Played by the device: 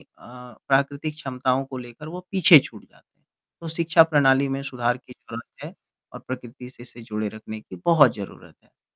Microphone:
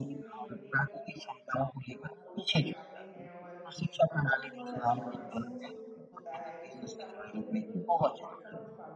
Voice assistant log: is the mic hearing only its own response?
No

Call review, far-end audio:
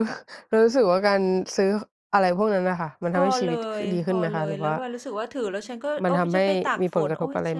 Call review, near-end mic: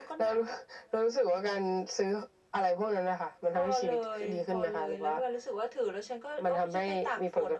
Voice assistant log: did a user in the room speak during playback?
No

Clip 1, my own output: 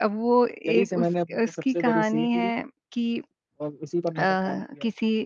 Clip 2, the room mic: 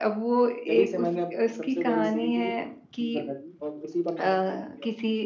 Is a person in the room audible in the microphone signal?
Yes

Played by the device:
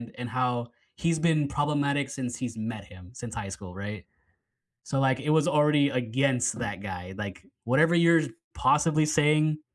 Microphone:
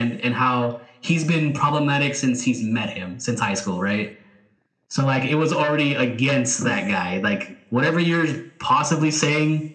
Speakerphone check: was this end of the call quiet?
Yes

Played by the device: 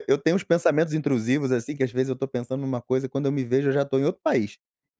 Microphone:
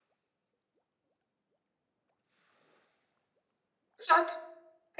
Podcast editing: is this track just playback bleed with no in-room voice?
No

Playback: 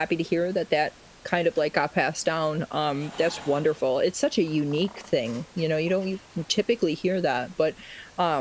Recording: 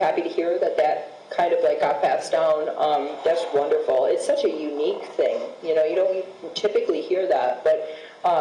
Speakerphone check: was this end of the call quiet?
Yes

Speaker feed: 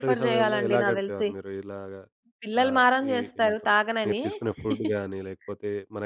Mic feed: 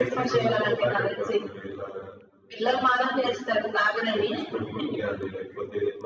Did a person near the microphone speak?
No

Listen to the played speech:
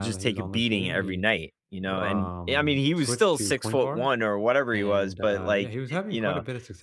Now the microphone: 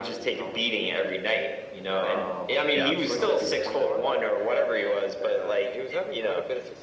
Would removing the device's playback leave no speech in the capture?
No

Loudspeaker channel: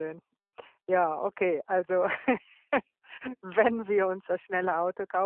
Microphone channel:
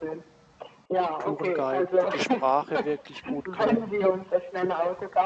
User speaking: Yes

